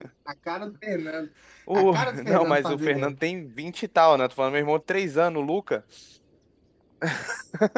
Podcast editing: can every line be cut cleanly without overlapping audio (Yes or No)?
No